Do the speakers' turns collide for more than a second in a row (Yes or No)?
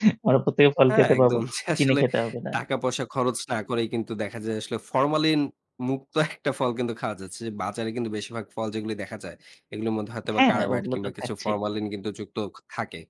Yes